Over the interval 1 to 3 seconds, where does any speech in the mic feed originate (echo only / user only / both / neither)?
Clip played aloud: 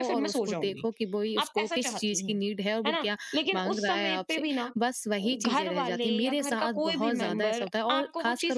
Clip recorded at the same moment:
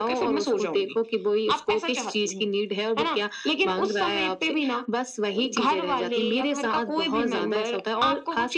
echo only